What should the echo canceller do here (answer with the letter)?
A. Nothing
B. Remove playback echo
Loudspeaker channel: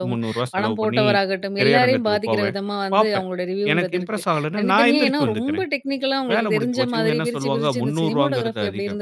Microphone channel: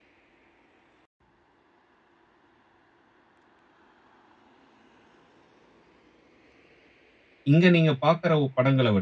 A